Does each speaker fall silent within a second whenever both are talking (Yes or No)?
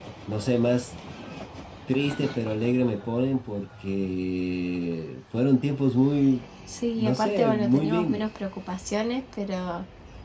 No